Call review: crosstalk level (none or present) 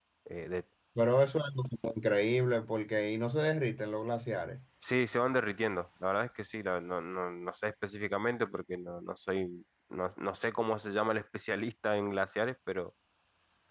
none